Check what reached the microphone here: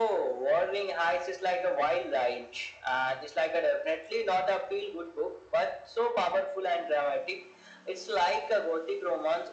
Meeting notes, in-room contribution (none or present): none